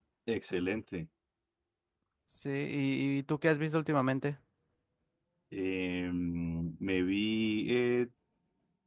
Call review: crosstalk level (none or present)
none